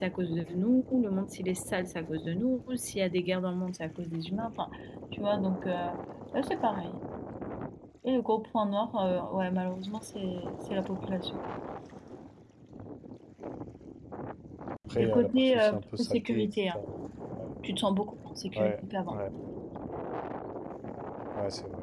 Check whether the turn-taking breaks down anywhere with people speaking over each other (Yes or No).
Yes